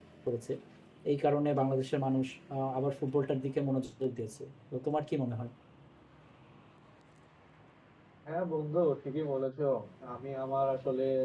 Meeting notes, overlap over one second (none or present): none